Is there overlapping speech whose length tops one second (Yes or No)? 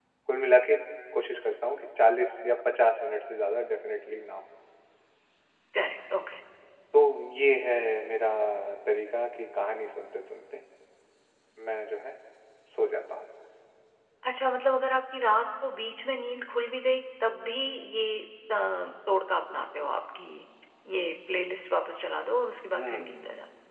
No